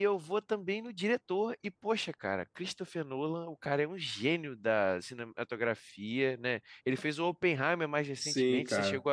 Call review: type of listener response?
taking over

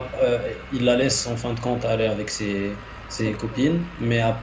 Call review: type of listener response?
listening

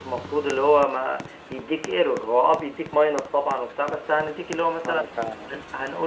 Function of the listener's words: listening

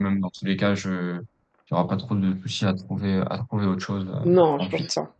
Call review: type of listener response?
taking over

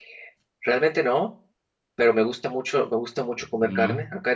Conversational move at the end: listening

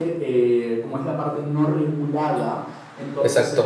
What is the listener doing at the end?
listening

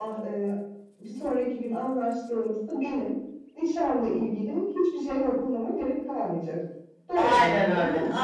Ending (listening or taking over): taking over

